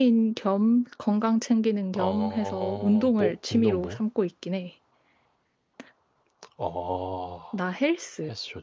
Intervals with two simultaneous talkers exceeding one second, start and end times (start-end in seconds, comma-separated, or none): 1.9-4.0